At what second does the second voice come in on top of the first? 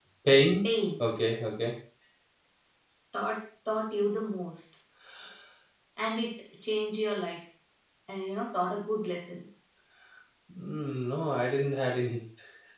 none

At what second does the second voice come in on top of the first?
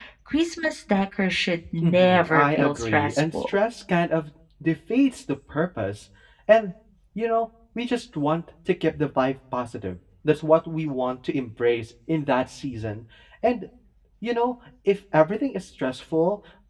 1.6 s

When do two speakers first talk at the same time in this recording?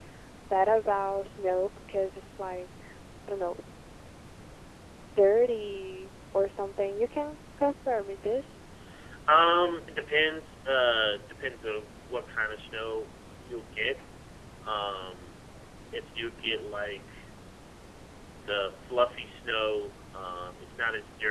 none

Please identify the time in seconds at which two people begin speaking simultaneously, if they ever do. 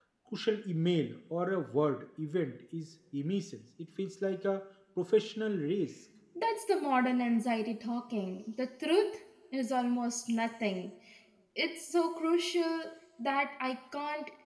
none

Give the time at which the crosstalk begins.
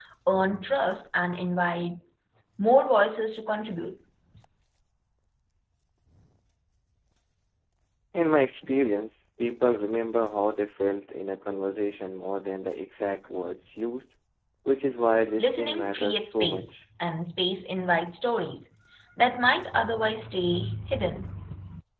15.4 s

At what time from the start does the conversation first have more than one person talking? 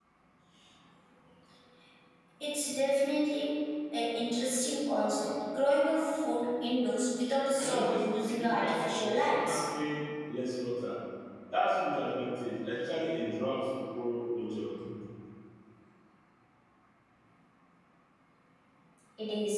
7.6 s

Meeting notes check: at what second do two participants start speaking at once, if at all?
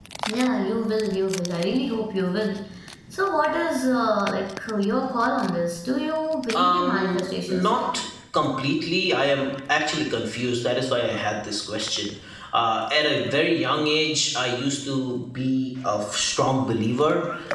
6.5 s

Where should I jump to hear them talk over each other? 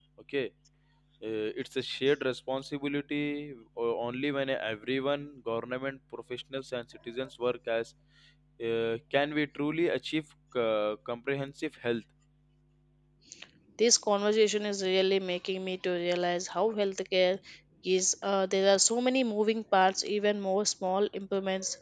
none

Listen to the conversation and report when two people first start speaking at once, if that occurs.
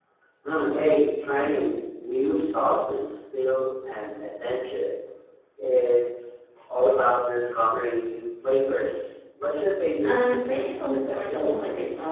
10.0 s

